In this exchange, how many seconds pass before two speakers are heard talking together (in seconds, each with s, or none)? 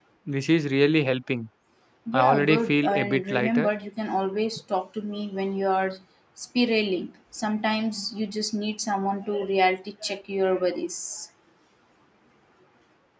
2.1 s